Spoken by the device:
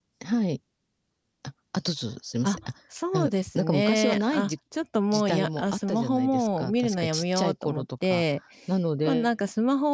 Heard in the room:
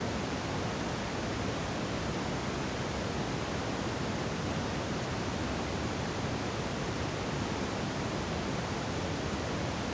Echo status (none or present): none